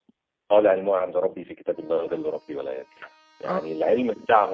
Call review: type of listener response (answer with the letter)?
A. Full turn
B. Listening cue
B